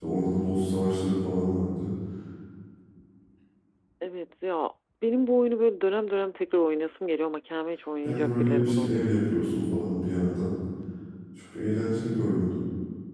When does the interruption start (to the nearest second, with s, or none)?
8 s